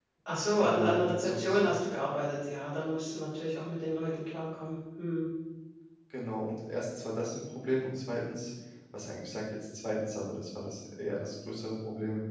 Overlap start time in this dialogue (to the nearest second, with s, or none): 1 s